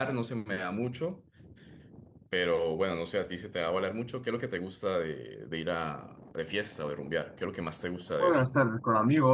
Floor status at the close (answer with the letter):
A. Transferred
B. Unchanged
A